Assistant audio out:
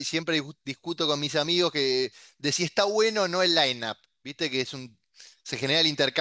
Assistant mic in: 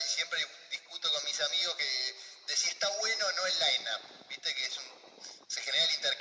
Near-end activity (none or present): none